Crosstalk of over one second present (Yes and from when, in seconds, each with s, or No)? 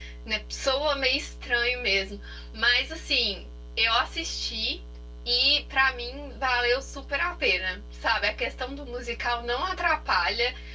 No